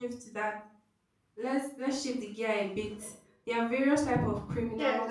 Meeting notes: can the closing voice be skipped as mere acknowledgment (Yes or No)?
No